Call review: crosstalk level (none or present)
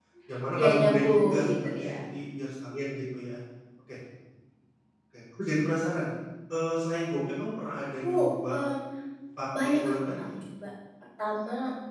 present